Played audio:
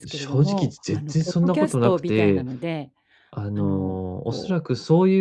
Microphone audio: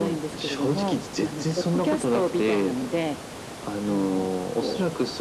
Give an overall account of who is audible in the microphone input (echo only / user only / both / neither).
echo only